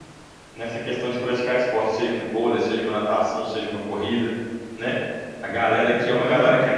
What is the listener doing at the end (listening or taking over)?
listening